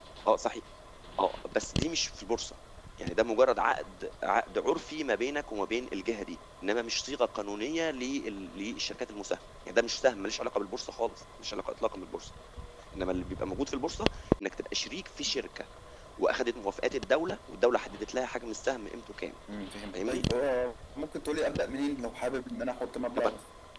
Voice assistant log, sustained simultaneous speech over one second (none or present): none